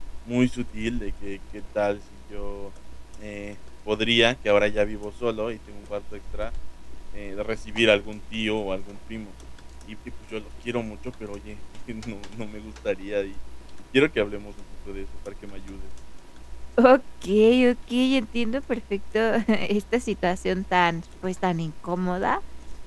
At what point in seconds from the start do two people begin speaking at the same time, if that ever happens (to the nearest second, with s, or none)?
none